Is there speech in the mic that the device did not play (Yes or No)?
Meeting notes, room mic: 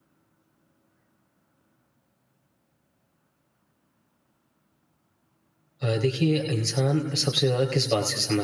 Yes